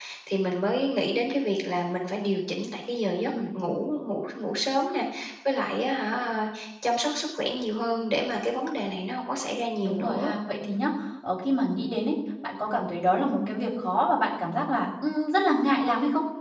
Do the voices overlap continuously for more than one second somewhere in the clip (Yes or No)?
No